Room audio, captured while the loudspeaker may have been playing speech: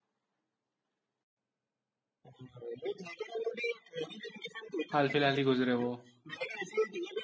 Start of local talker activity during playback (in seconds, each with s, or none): 4.9 s